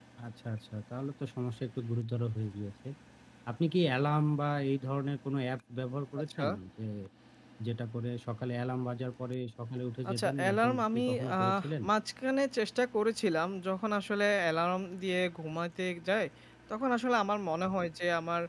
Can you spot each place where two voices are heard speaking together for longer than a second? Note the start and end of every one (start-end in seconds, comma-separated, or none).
10.1-11.8